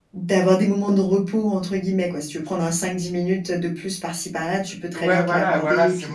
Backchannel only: No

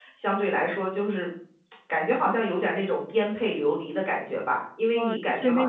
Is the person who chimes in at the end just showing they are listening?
No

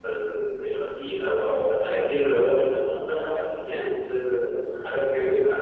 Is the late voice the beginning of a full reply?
No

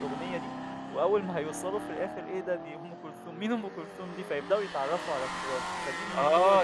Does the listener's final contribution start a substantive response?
Yes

